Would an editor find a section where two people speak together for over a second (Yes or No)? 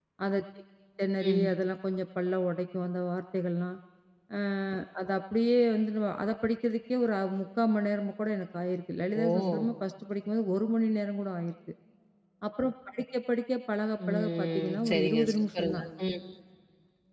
Yes